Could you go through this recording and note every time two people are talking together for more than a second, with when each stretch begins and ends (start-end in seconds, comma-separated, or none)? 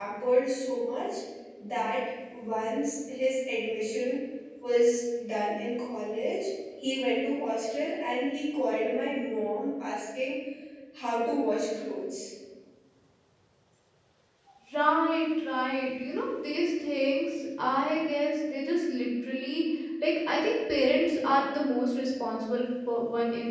none